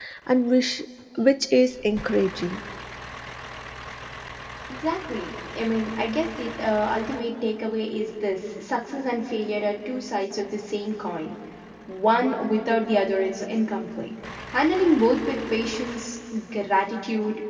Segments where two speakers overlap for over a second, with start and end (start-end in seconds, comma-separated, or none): none